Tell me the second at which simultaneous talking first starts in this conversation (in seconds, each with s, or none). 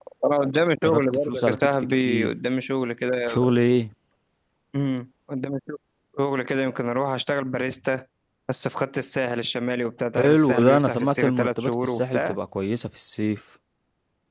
0.8 s